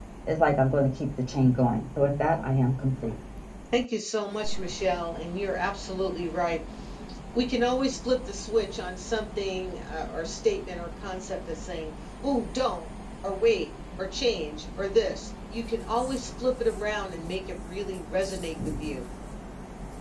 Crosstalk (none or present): none